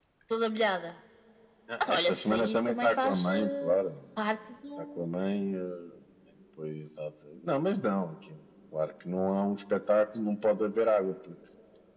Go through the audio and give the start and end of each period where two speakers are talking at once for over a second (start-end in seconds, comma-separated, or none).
1.9-3.8